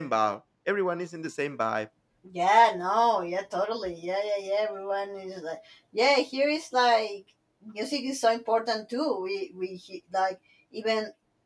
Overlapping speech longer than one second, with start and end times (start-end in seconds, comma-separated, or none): none